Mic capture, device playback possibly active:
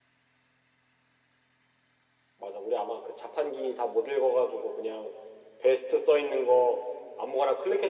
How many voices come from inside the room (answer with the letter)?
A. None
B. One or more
A